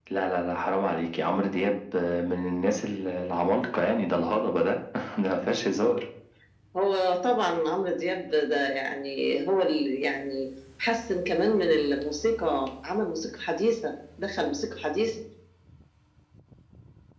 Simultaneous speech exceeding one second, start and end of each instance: none

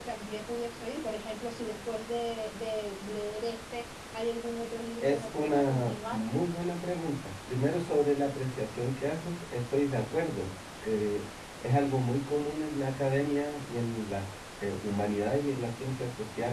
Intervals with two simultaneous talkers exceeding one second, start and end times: 5.0-6.2

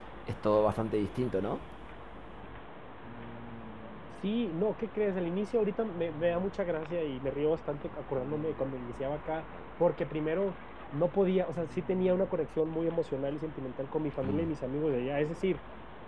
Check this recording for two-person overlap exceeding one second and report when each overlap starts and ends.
none

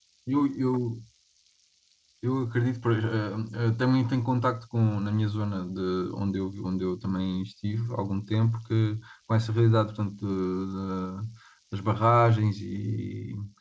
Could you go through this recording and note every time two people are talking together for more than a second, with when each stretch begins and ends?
none

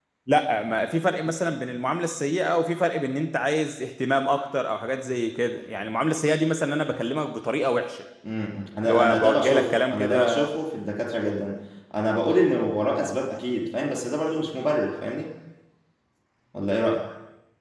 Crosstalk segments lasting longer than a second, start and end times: 8.9-10.4

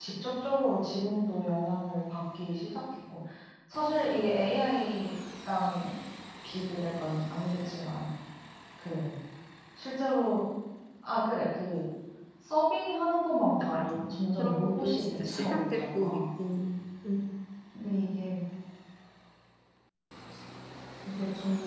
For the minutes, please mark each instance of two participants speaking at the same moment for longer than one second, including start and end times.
13.6-16.2

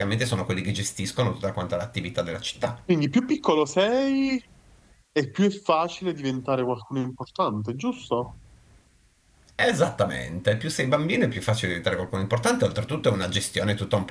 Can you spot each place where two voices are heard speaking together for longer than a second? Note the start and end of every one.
none

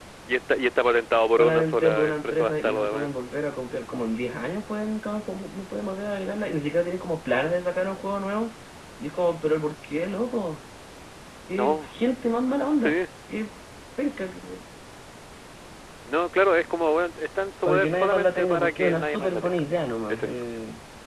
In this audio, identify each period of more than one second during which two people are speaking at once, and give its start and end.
1.3-3.1, 17.6-19.6

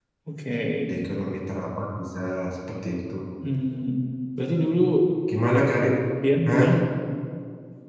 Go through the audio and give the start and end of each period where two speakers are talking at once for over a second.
none

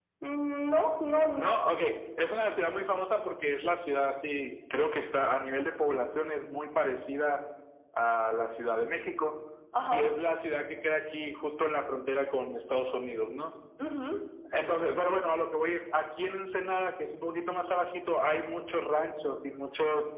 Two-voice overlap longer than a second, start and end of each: none

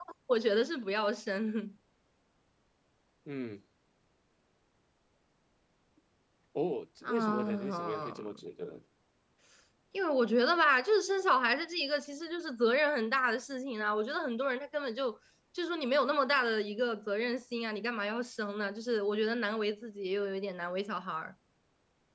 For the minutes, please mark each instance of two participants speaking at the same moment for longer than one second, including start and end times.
7.0-8.4

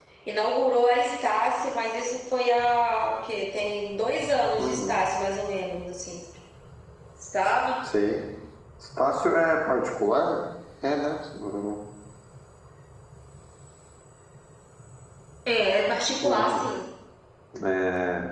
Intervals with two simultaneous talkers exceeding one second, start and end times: none

